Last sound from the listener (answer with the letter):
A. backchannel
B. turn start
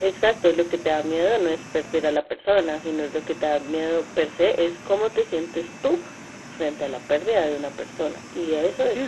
B